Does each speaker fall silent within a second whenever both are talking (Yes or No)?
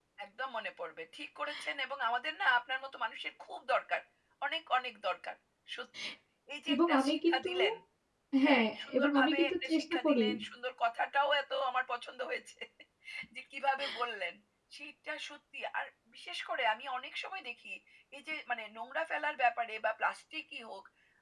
No